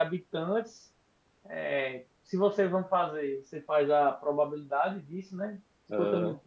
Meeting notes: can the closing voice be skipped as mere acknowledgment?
Yes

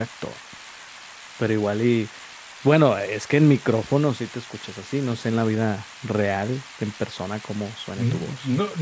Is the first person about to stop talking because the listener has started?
Yes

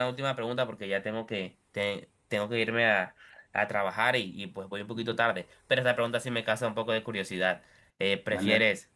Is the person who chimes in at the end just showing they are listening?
Yes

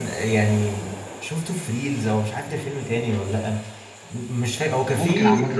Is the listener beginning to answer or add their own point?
No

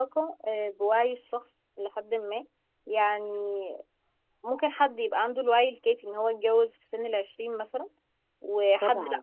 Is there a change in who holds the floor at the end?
No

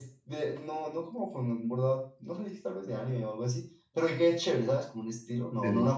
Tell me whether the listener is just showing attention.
Yes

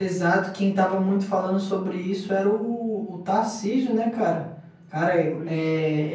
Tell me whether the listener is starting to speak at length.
No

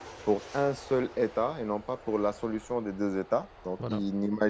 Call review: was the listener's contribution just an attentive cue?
Yes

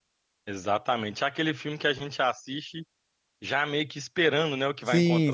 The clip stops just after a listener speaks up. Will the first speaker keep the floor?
No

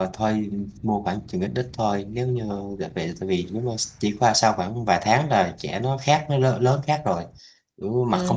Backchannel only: No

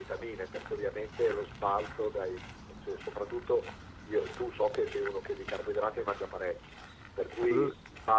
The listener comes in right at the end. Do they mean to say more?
No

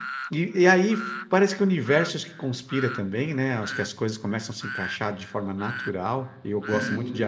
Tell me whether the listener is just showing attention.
Yes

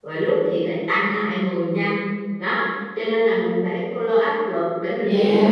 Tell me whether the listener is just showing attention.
Yes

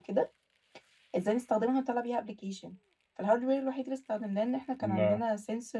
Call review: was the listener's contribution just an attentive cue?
Yes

